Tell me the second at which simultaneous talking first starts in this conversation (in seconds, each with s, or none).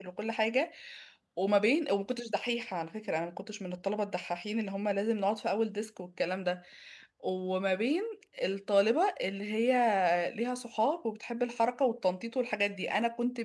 none